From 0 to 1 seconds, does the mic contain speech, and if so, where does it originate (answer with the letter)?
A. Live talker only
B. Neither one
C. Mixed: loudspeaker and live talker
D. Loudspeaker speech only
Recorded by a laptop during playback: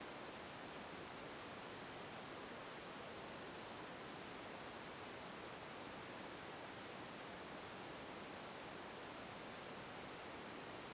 B